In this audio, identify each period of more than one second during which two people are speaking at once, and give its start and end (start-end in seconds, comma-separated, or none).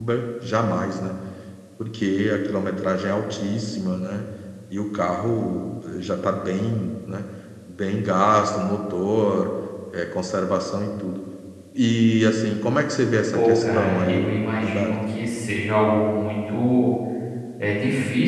13.3-14.9